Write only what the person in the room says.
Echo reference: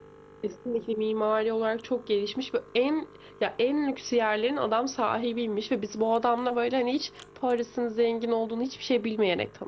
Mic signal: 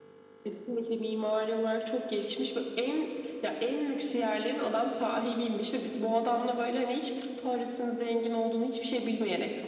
none

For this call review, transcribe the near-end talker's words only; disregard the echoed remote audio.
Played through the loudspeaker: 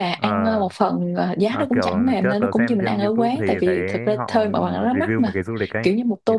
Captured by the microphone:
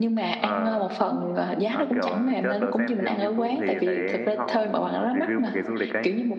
none

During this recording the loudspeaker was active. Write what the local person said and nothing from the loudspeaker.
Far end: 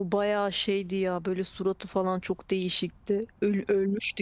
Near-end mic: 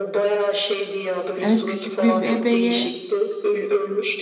evet küçük bir bebeği.

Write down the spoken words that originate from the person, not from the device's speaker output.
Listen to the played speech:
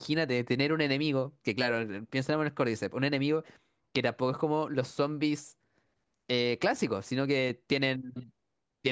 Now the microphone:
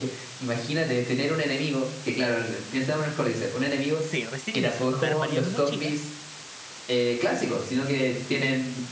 Sí, recién inicio. Me armaría mi mochila,

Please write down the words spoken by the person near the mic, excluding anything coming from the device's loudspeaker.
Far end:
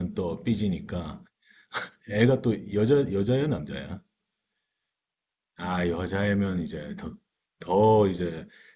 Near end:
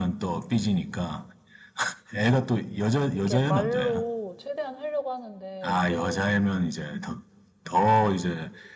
이렇게 말로 최대한 하려고 하는데, 이제,

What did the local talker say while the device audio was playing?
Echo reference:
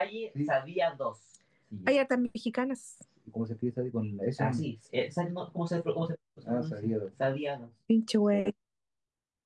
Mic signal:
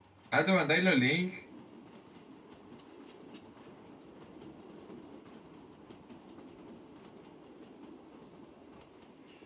Ah, te mandáis los links.

